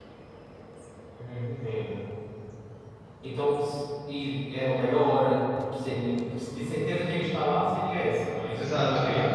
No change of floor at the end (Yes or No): No